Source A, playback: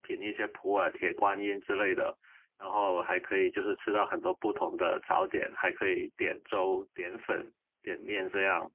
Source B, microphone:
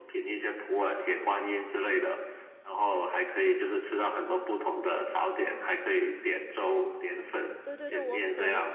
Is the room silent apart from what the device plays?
No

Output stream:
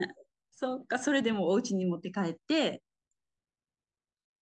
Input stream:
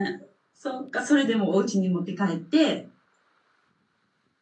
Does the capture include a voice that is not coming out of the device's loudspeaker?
No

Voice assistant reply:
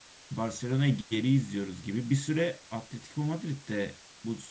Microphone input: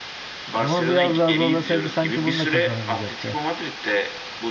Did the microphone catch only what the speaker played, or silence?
No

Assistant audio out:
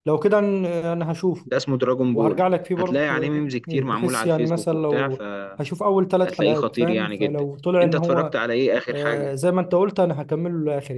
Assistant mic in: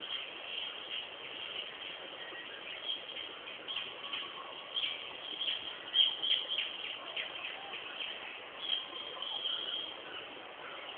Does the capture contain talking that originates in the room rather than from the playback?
No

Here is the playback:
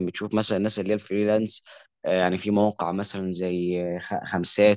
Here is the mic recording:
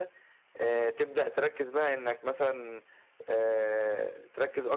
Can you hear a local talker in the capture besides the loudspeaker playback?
Yes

